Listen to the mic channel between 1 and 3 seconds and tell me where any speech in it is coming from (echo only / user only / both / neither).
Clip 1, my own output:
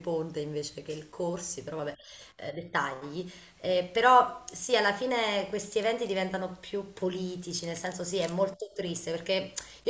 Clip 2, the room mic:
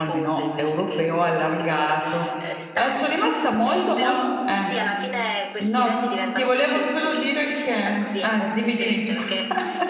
both